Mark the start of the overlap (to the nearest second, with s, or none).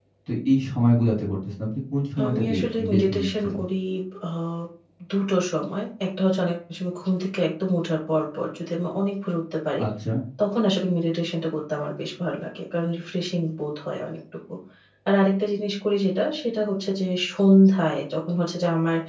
2 s